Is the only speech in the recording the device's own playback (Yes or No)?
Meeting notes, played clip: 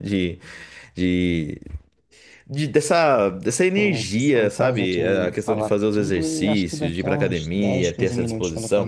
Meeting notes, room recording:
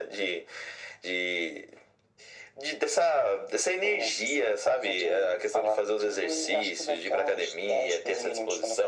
Yes